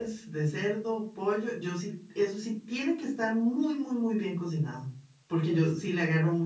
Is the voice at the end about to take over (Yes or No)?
No